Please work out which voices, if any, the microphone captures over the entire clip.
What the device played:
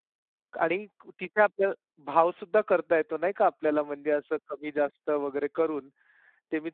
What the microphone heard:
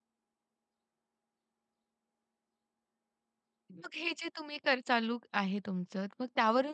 user only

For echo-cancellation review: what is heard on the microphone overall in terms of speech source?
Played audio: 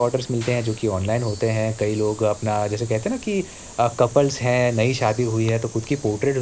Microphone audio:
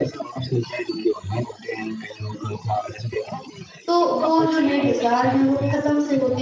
both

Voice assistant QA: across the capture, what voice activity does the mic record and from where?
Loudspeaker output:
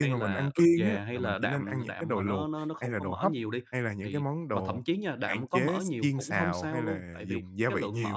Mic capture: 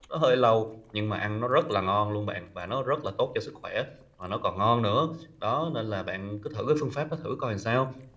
user only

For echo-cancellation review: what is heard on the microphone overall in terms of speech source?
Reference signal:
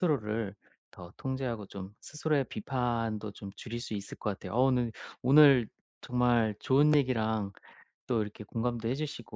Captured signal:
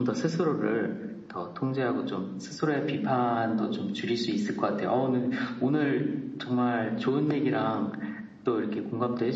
echo only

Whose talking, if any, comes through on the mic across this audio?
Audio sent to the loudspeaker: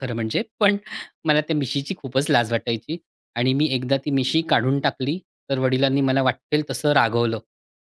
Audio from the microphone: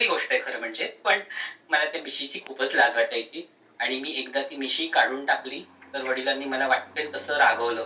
echo only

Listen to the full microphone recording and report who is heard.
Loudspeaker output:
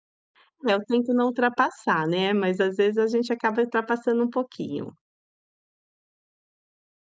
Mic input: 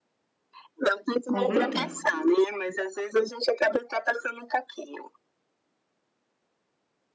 both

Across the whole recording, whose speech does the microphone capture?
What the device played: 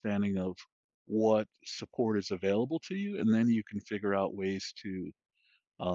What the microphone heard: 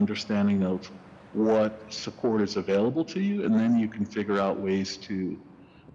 echo only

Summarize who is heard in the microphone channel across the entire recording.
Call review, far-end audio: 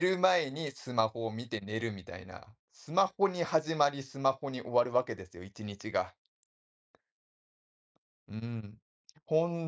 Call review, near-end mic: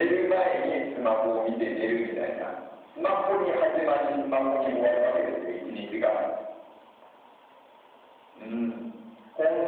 echo only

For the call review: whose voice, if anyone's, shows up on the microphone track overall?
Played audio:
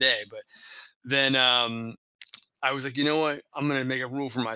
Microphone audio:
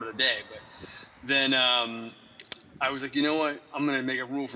echo only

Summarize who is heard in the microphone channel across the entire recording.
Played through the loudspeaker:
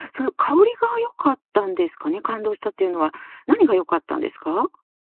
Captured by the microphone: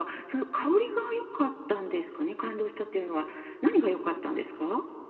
echo only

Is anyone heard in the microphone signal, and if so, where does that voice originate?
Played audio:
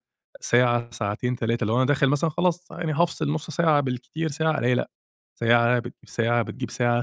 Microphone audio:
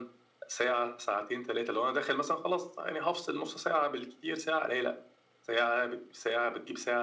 echo only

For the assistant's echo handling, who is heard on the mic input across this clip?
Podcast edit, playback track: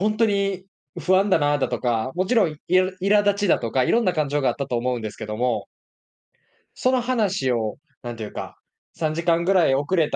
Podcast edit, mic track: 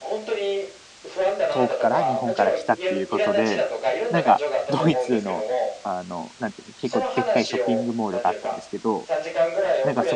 both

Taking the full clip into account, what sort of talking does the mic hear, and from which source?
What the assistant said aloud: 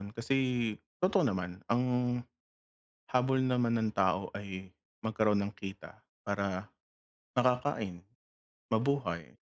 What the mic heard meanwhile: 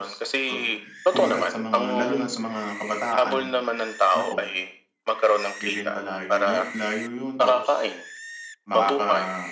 both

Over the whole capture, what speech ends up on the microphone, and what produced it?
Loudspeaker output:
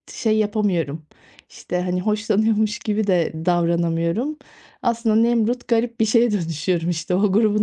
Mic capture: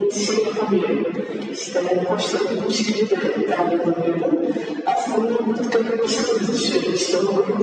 echo only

